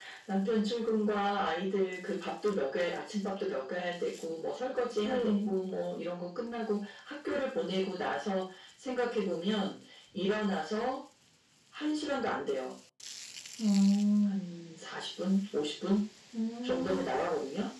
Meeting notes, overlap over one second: none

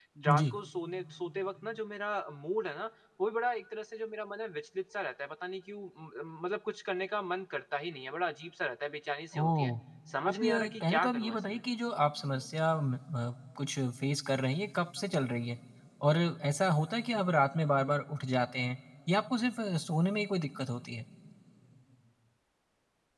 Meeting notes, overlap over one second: present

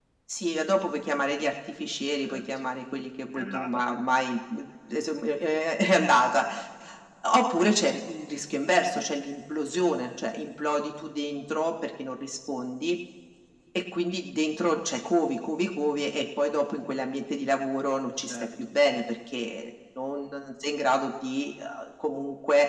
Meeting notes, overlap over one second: none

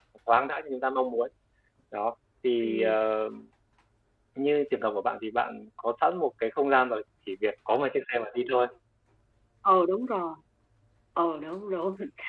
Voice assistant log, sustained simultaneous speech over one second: none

